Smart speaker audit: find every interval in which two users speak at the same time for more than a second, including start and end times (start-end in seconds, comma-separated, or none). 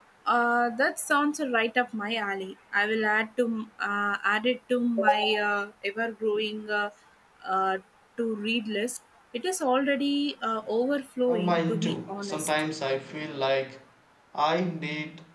11.3-12.5